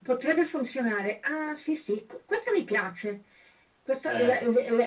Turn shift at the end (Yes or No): No